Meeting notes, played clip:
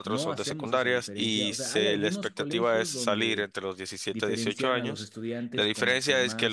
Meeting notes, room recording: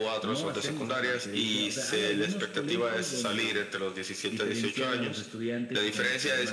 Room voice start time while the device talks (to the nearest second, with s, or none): none